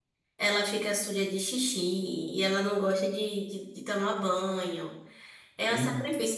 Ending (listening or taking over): listening